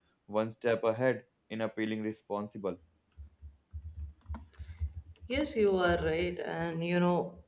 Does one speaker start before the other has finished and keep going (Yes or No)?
No